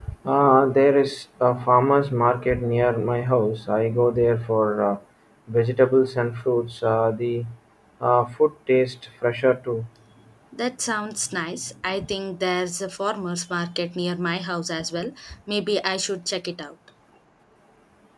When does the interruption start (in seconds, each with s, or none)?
none